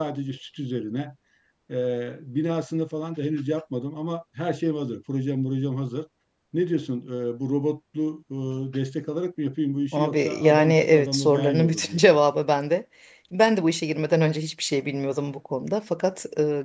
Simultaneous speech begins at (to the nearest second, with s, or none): 10 s